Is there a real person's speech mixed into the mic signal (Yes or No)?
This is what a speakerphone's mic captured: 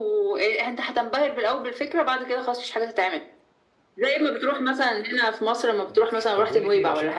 Yes